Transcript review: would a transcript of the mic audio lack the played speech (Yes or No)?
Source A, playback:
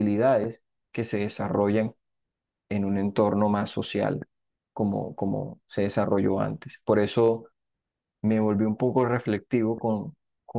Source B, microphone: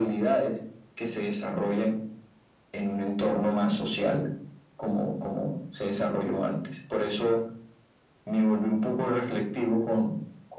No